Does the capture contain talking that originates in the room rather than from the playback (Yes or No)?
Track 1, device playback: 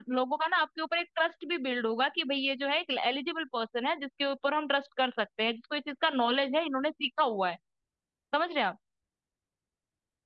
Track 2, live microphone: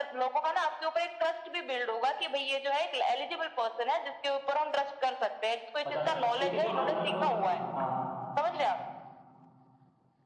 Yes